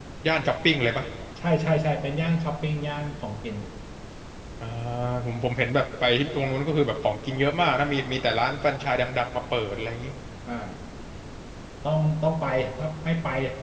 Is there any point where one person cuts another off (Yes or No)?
No